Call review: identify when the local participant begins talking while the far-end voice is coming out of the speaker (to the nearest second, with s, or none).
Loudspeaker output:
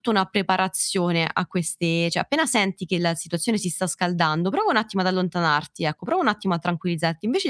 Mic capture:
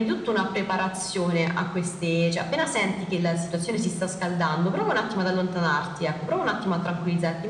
none